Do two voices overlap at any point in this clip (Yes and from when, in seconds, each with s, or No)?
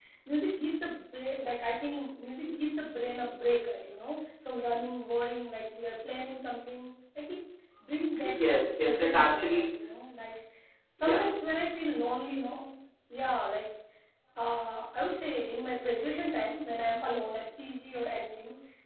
Yes, from 8.2 s